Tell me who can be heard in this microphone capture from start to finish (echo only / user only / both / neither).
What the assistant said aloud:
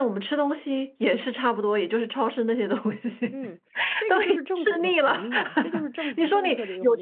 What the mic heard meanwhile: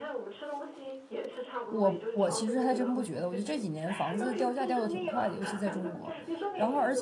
both